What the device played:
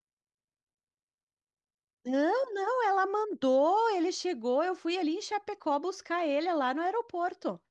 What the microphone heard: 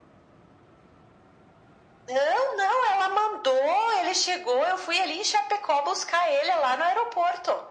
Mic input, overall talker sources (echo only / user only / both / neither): echo only